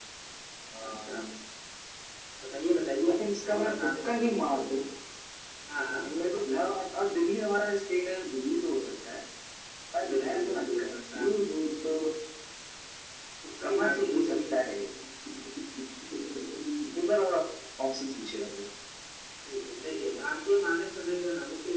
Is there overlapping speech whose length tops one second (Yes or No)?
Yes